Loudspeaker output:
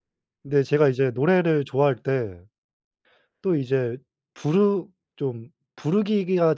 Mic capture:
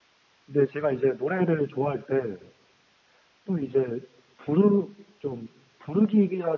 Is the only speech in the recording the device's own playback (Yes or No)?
Yes